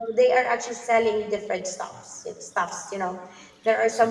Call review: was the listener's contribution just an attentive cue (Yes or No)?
No